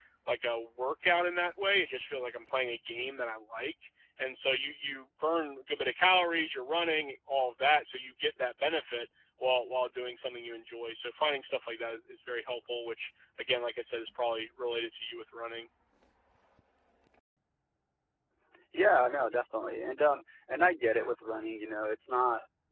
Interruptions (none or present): none